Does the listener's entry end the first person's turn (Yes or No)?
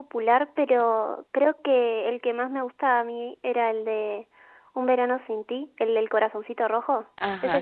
Yes